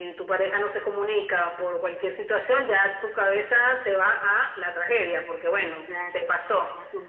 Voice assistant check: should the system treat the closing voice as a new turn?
Yes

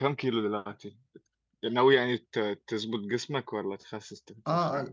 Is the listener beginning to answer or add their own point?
Yes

